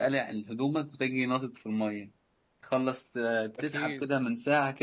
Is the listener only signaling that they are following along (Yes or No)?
Yes